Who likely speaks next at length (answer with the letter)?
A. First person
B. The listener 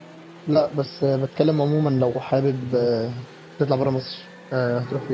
B